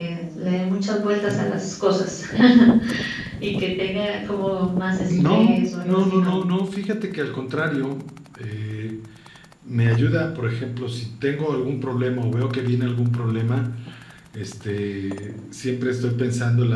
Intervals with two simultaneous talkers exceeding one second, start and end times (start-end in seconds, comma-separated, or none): 5.0-6.4